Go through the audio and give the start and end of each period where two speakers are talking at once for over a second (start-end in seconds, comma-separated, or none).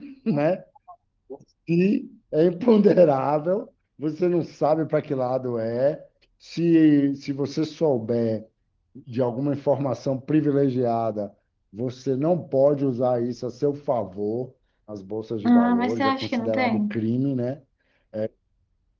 15.4-17.0